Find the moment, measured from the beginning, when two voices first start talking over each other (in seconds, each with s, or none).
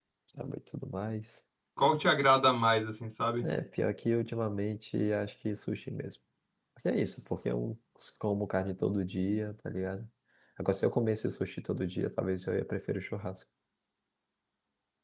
none